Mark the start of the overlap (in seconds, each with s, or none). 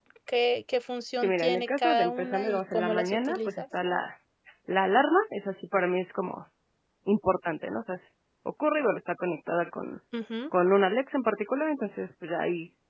1.2 s